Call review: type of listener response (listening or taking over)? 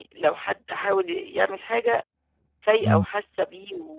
listening